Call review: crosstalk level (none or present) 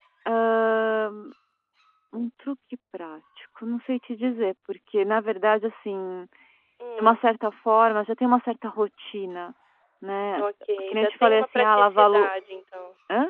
present